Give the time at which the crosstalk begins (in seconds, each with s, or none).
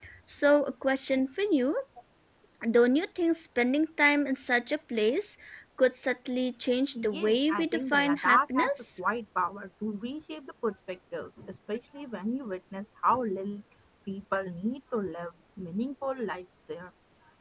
6.9 s